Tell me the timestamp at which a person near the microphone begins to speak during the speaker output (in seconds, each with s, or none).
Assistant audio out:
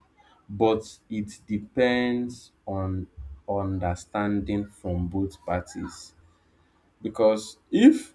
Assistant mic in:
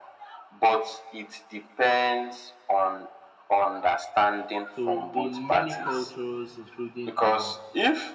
4.7 s